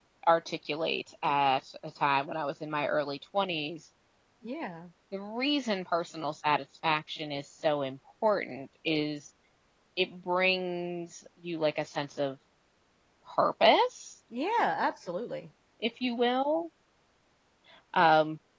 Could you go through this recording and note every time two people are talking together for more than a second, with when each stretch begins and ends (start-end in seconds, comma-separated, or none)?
none